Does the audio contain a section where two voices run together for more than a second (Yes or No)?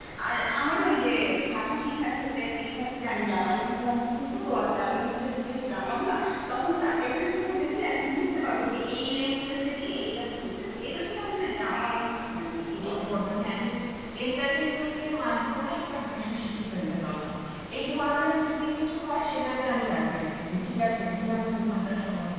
No